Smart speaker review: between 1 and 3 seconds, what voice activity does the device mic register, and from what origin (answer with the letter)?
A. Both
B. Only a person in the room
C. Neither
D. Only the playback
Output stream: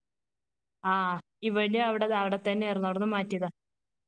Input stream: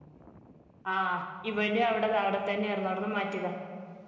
D